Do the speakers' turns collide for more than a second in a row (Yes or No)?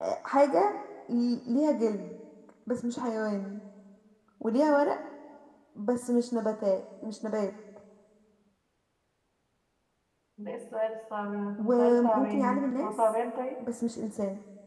Yes